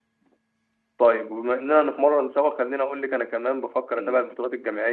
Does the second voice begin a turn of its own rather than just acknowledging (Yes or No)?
No